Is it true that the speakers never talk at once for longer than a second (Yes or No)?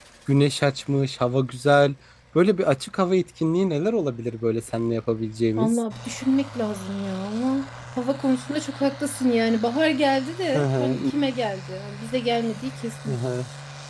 Yes